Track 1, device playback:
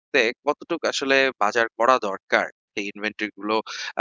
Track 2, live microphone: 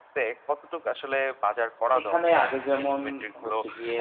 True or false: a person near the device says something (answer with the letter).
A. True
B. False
A